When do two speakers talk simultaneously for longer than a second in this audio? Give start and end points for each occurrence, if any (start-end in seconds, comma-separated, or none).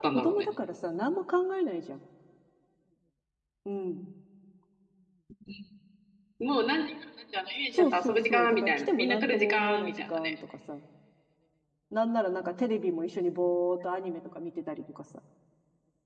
7.7-10.3